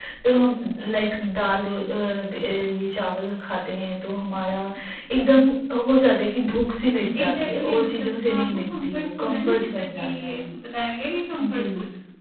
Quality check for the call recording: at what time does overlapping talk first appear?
7.2 s

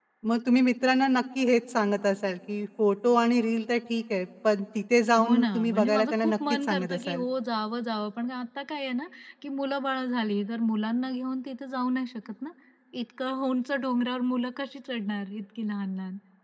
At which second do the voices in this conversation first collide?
5.2 s

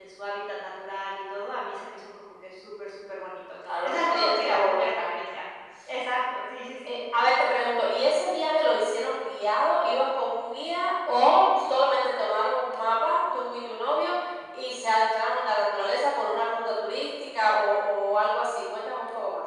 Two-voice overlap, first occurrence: 3.6 s

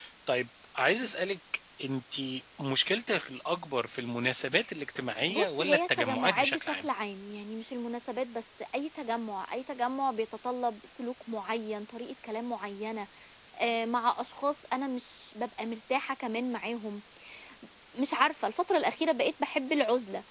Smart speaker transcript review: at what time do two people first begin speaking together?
5.3 s

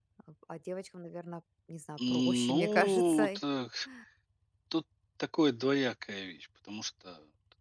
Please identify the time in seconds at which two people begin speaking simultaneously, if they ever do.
2.0 s

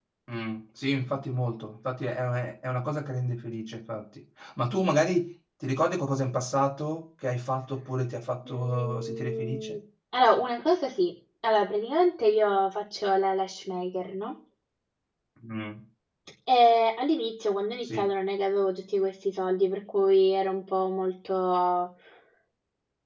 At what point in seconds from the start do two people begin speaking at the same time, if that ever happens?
8.5 s

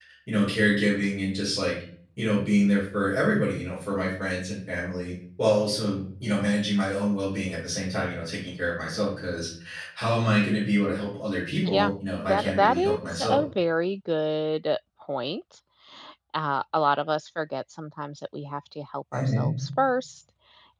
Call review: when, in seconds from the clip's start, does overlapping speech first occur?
11.6 s

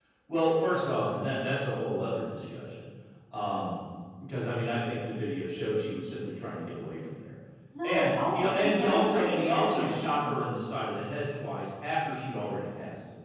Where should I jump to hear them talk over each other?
7.8 s

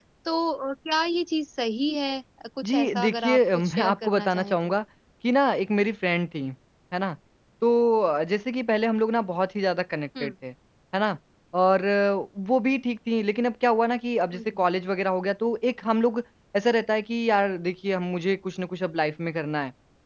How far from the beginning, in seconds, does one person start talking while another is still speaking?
2.6 s

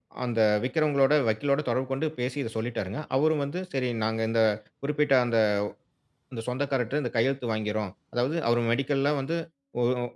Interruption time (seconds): none

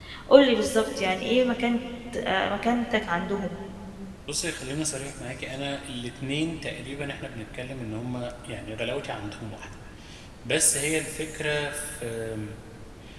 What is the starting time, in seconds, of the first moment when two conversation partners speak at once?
none

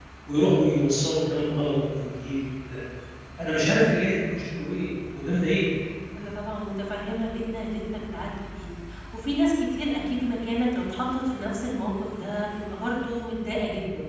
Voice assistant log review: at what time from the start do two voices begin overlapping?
none

